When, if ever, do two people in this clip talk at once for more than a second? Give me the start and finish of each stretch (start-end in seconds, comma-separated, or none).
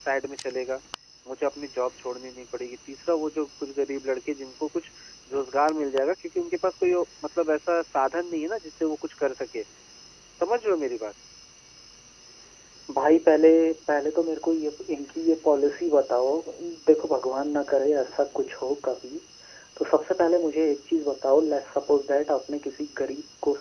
none